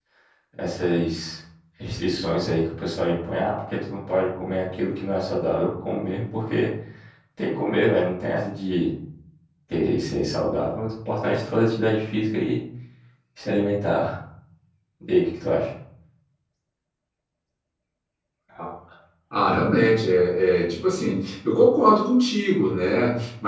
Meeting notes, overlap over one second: none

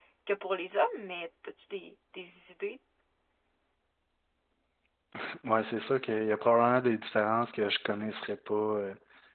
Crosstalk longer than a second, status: none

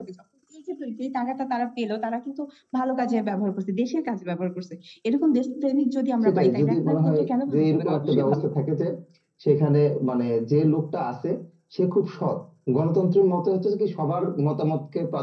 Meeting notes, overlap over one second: present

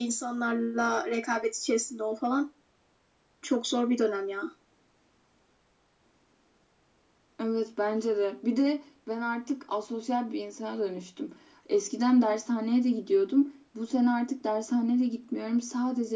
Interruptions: none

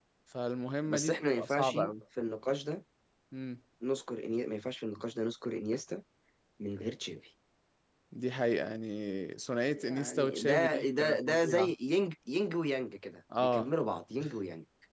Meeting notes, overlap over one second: present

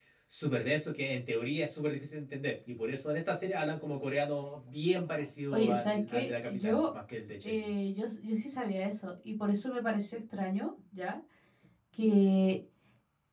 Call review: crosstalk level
present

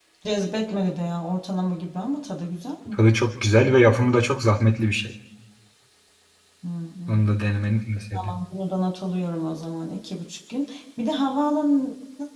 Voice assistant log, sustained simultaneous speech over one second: none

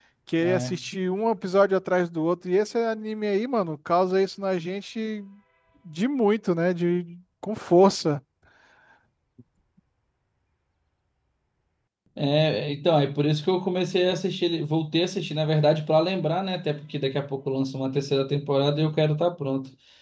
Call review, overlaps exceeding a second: none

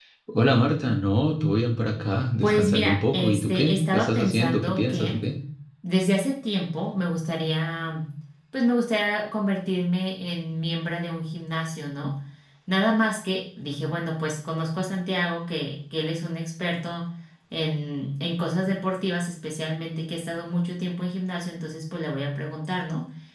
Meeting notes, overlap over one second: present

